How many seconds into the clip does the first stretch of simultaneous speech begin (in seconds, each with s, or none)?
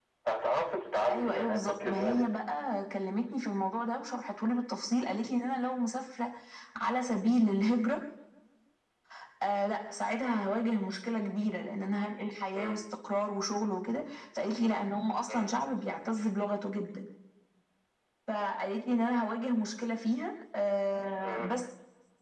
1.1 s